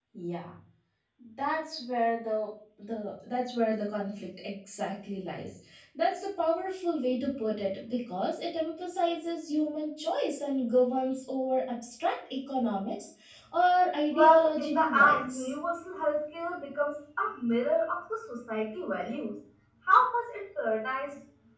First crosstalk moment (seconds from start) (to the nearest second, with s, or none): 14 s